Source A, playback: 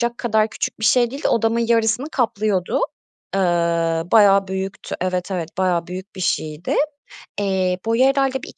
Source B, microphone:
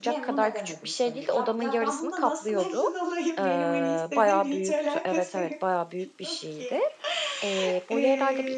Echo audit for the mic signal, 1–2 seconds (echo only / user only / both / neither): both